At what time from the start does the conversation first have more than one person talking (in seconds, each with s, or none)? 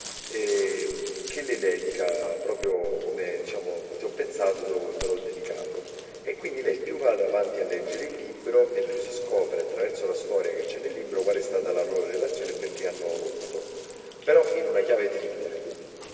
none